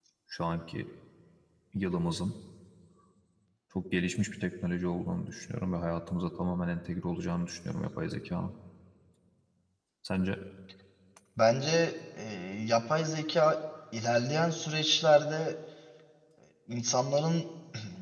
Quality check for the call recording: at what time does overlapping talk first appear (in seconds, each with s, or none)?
none